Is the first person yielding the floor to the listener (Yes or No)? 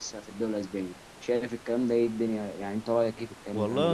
Yes